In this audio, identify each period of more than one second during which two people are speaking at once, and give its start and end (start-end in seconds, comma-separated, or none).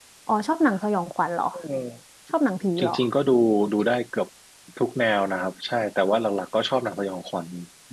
none